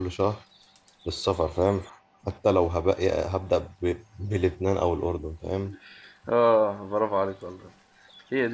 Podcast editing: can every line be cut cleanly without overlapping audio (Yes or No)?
Yes